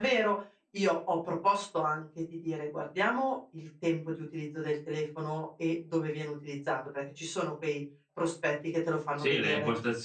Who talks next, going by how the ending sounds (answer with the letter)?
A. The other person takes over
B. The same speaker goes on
A